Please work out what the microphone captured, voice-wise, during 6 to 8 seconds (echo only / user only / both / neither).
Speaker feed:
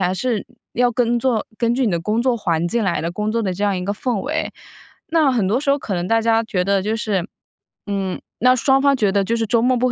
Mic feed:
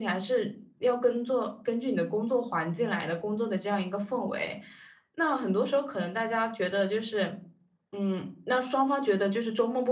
echo only